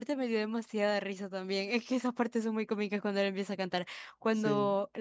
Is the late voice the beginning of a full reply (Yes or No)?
No